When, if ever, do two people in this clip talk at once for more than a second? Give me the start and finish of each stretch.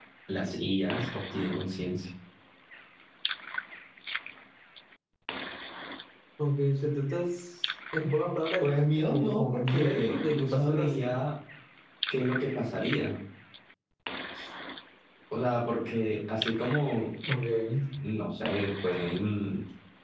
8.6-11.2

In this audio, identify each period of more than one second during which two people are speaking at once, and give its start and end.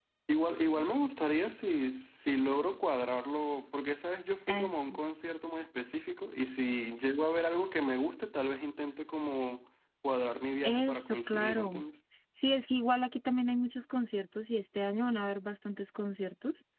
10.6-11.8

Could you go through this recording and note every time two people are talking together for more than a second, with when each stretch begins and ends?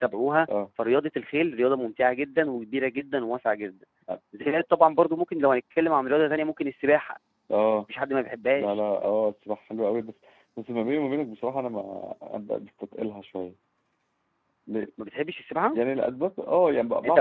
none

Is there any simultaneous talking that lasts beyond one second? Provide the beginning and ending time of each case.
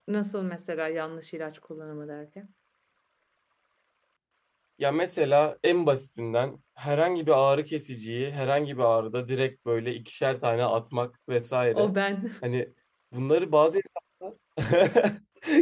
none

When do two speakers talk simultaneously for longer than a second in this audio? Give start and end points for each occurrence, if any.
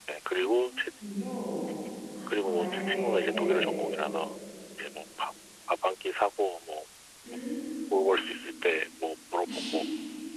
2.4-3.8

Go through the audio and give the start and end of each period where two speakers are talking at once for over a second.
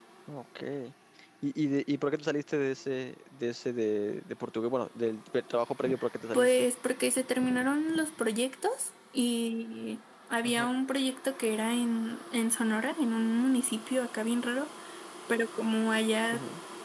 none

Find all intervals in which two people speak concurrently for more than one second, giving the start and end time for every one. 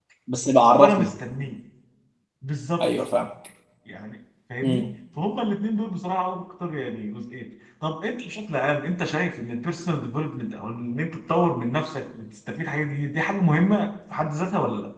none

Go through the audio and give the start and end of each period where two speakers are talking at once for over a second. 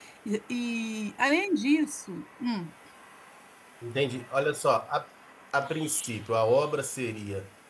none

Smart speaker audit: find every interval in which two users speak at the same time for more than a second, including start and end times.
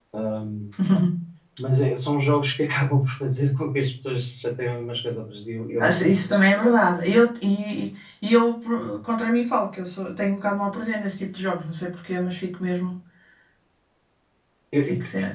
none

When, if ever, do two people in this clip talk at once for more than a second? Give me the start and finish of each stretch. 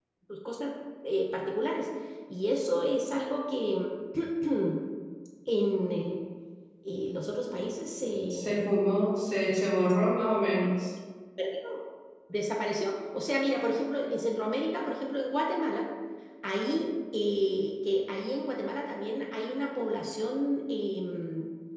none

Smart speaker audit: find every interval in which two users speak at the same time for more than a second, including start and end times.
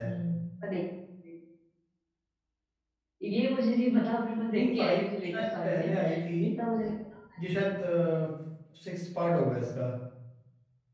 4.5-5.9

